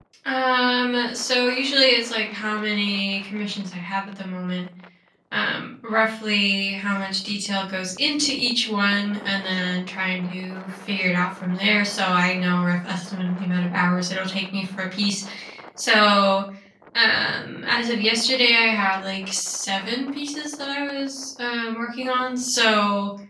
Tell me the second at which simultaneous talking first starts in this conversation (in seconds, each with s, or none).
none